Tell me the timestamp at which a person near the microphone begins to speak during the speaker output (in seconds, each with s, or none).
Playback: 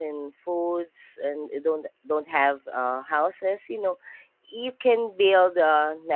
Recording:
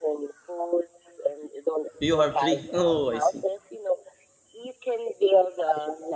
2.0 s